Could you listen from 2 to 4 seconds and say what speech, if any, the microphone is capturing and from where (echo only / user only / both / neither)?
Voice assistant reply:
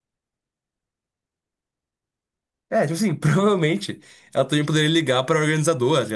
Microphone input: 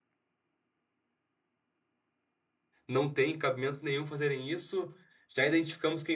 user only